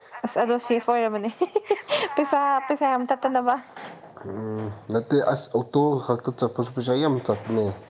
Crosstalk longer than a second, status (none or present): none